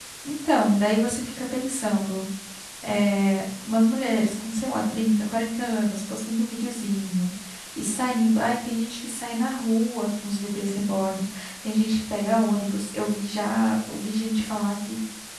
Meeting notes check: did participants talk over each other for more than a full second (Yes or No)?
No